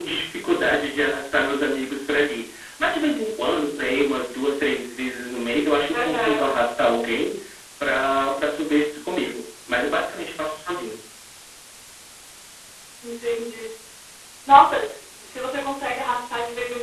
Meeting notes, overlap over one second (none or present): none